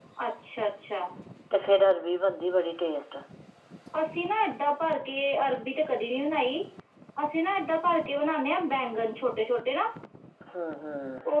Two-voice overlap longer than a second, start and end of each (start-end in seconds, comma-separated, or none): none